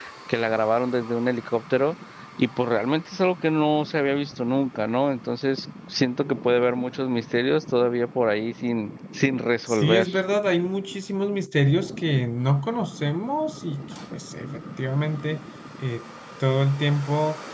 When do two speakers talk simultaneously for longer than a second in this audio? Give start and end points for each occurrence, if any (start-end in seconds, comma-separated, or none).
none